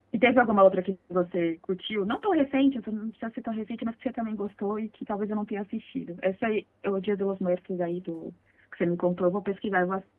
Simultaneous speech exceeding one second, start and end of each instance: none

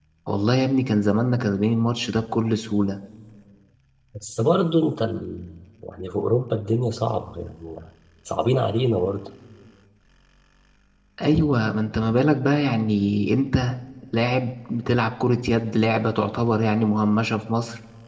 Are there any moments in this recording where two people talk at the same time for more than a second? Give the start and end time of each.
none

